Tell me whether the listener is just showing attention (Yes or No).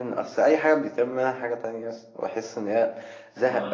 Yes